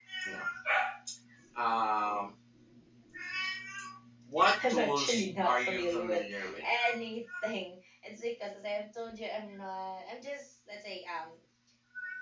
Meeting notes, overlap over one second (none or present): present